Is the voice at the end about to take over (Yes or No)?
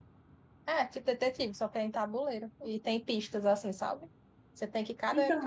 No